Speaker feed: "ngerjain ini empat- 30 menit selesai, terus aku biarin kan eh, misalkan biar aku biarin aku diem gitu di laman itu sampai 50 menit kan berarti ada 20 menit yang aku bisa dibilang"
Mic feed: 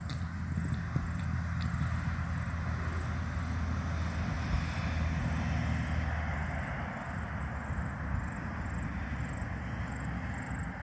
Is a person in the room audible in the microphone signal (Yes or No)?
No